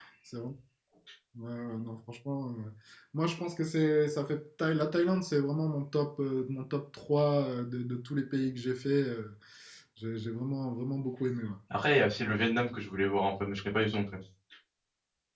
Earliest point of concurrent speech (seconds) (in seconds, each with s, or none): none